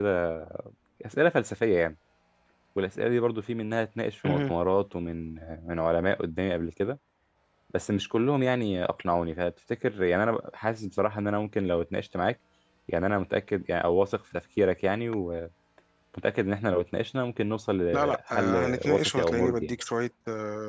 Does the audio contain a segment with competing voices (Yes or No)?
Yes